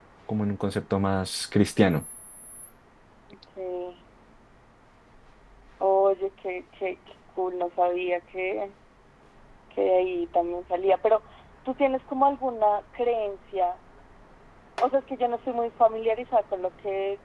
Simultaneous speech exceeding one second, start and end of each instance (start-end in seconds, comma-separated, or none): none